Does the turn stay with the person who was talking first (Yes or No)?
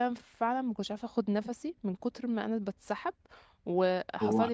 Yes